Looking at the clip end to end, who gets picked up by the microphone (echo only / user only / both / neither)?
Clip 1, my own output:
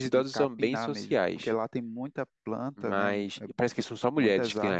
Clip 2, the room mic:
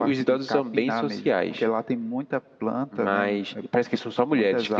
echo only